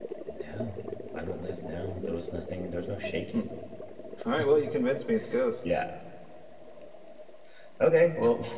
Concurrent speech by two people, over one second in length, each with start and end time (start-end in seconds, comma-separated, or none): none